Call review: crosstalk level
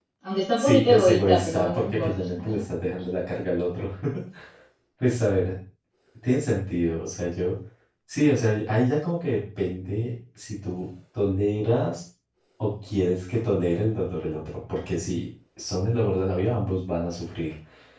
present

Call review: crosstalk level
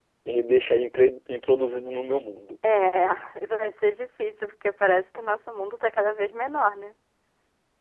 none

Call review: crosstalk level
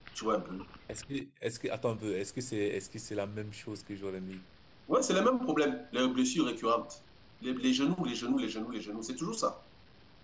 none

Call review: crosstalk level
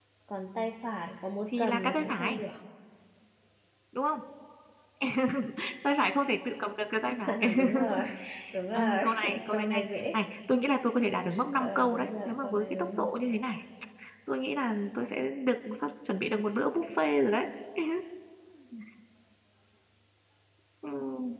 present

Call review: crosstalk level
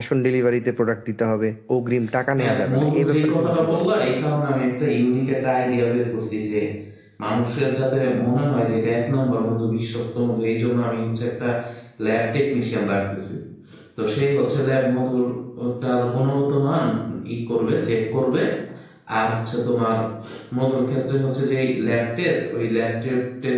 present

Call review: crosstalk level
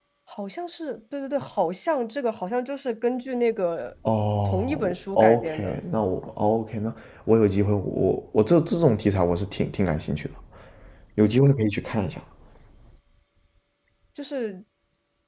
present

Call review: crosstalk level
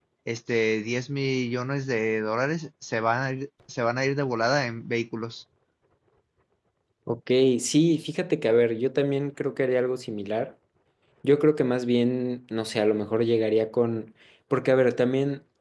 none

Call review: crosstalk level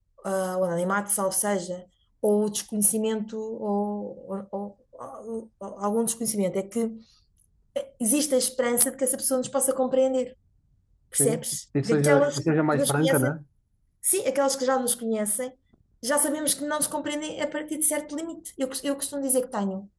present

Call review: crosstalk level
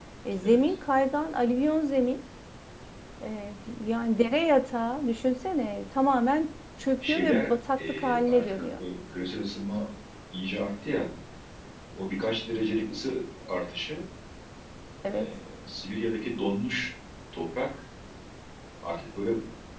present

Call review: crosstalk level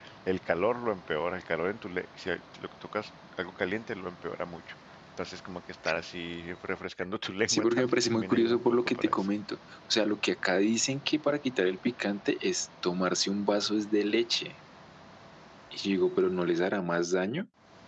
present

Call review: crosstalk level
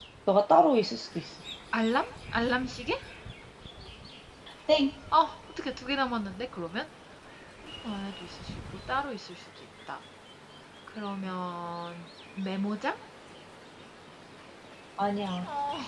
none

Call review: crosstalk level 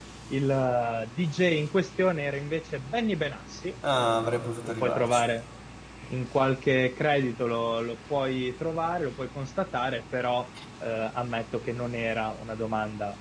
present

